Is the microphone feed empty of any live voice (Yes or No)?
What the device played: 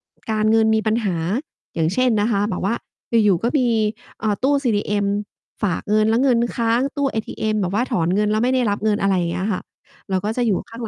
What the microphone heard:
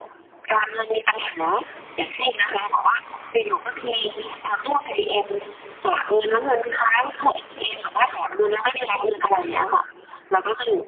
Yes